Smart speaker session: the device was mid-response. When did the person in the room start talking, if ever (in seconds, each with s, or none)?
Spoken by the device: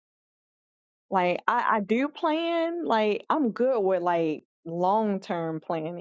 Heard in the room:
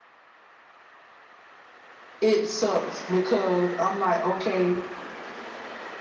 2.2 s